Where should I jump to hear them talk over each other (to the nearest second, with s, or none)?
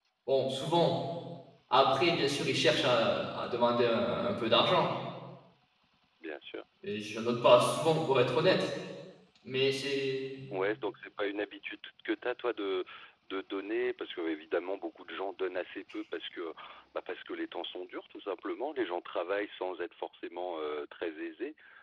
none